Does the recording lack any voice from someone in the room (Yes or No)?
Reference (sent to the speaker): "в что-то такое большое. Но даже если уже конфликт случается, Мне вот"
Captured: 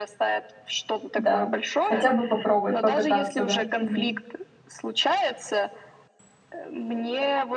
No